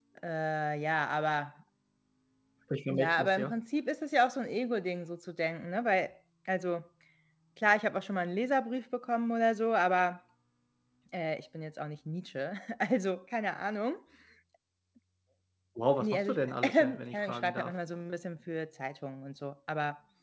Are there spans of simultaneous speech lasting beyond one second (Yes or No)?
Yes